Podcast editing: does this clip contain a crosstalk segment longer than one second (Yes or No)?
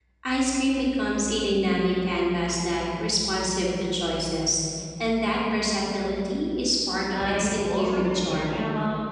Yes